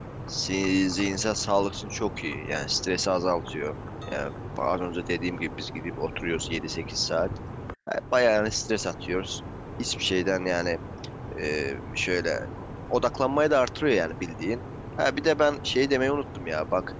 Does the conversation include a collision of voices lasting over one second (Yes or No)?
No